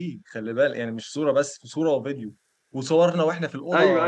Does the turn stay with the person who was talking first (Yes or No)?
Yes